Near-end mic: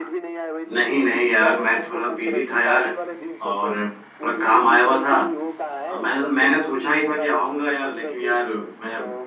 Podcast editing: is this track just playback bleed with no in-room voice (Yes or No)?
No